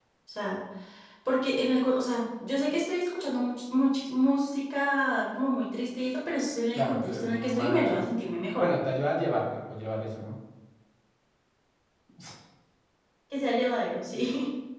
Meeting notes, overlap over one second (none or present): present